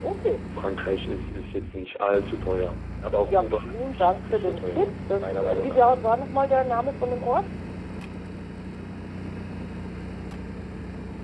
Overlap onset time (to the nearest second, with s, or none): 3 s